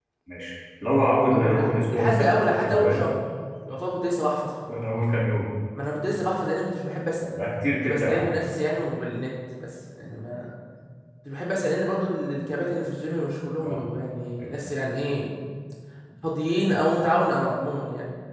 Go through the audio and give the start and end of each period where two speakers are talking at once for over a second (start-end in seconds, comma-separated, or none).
1.3-3.0